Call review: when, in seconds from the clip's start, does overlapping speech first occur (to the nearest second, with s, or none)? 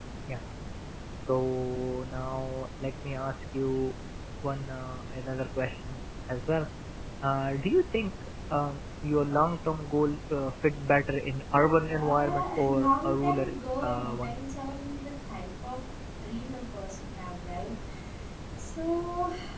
12 s